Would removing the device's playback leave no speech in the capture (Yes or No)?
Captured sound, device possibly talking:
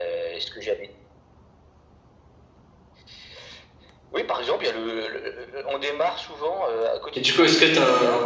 No